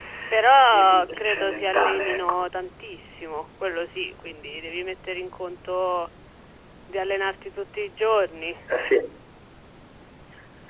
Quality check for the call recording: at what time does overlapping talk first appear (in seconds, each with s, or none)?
0.7 s